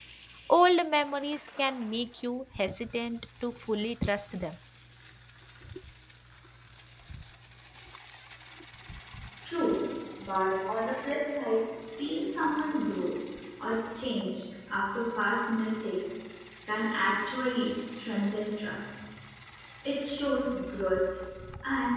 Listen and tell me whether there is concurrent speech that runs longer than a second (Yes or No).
No